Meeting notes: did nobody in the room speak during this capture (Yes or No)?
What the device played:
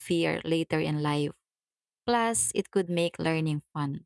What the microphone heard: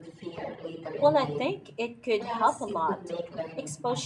No